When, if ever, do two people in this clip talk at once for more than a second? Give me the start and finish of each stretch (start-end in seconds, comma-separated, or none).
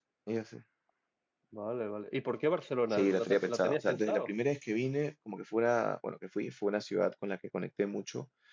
2.9-4.3